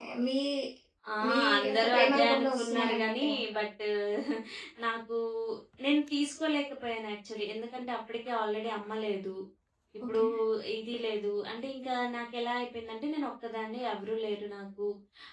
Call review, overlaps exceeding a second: present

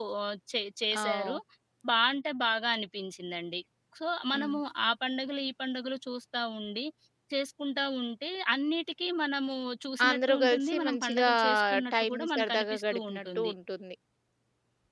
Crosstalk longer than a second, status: present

